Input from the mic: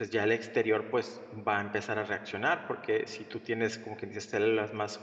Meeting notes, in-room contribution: present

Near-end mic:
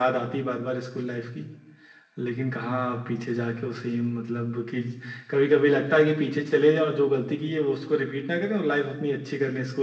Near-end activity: none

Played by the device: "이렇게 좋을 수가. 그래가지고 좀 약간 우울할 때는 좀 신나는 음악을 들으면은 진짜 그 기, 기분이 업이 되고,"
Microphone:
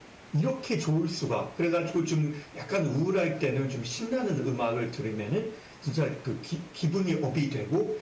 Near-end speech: none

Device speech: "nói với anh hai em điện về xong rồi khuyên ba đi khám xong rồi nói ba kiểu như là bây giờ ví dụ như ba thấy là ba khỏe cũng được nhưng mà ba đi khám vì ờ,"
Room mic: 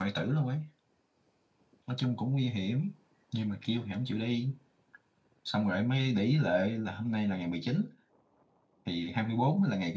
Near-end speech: present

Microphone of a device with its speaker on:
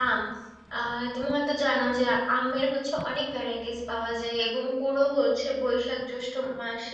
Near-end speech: present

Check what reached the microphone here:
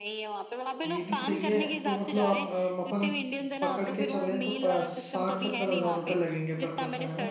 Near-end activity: present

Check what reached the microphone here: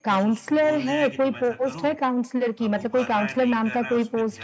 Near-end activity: present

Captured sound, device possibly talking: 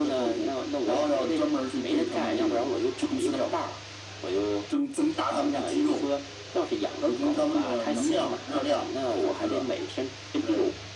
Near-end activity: none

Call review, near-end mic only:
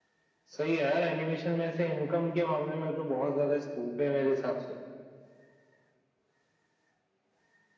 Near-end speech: none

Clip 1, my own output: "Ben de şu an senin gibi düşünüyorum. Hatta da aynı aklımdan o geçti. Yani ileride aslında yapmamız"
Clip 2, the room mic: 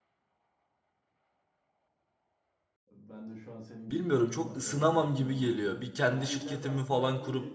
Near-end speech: present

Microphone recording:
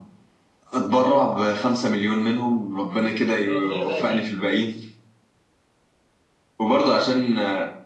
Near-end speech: present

